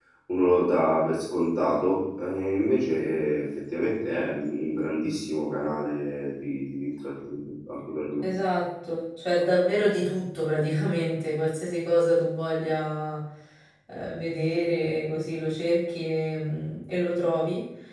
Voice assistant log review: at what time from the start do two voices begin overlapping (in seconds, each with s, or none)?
none